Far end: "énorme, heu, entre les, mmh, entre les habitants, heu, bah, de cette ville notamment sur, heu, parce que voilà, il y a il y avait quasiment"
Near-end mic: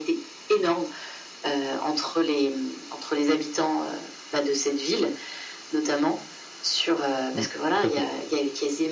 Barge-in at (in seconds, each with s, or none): 7.3 s